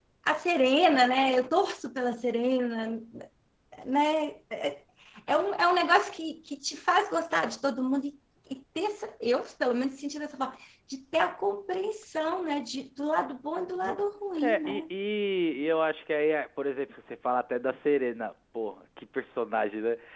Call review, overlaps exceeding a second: none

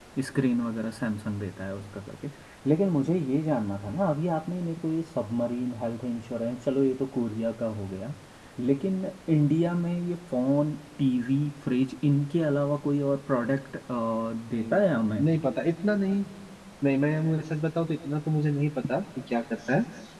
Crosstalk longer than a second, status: none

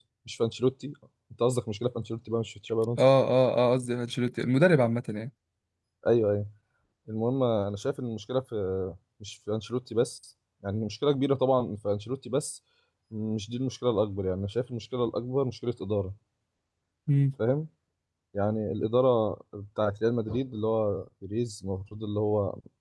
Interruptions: none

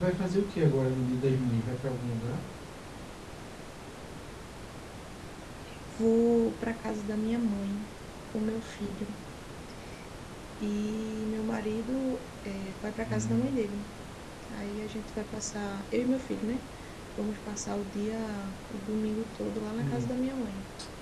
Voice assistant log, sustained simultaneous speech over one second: none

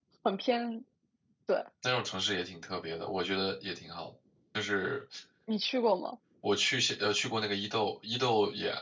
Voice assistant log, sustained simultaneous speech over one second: none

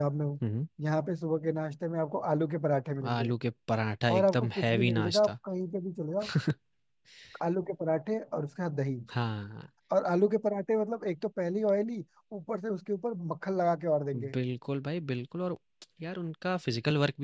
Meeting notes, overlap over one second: present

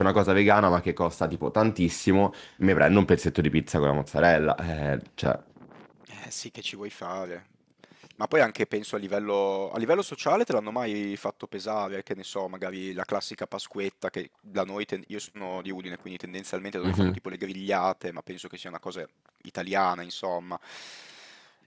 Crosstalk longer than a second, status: none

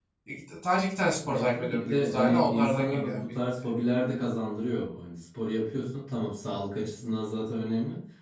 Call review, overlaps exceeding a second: present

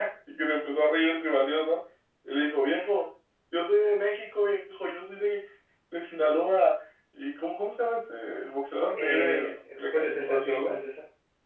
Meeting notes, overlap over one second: present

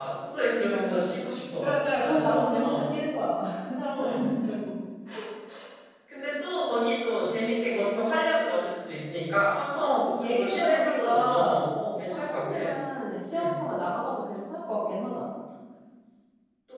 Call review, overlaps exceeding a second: present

